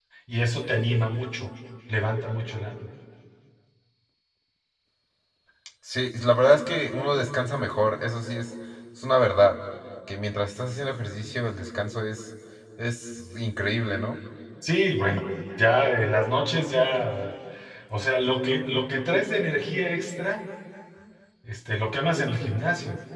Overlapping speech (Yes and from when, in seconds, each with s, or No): No